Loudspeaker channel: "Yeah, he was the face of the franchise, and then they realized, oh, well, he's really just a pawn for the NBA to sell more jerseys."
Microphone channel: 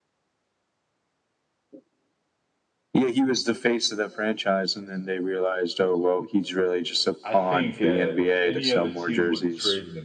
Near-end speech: present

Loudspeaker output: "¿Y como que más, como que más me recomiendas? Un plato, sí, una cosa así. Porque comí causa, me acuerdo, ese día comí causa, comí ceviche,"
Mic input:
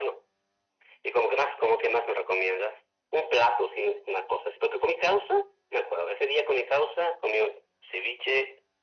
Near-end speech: none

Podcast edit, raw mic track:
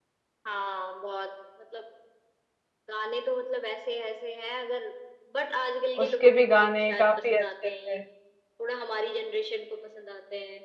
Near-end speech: present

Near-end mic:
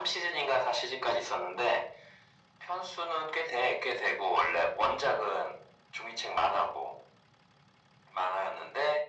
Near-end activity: none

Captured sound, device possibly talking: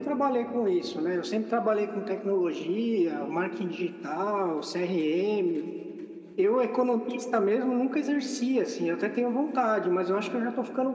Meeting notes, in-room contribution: none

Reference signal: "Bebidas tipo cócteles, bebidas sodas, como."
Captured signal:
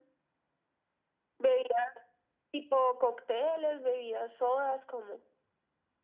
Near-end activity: none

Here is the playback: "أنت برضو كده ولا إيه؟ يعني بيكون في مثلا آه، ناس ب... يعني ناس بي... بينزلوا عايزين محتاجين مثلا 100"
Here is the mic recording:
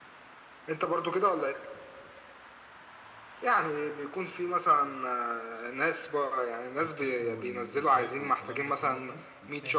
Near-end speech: present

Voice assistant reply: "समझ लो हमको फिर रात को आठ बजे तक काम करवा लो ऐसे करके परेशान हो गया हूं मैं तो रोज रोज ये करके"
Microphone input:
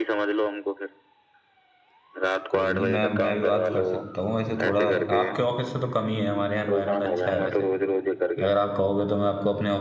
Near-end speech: present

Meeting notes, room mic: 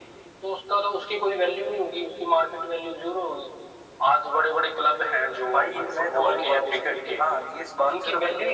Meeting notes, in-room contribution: none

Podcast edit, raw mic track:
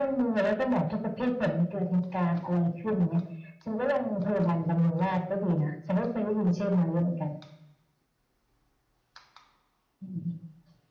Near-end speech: none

